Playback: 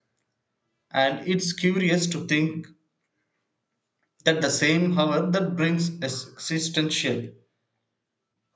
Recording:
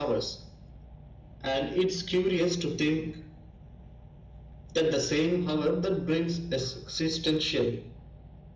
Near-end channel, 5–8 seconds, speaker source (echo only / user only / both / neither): echo only